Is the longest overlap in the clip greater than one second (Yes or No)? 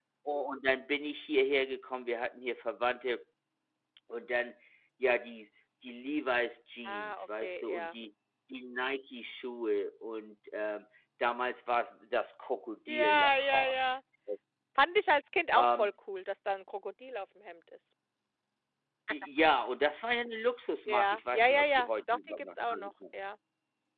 Yes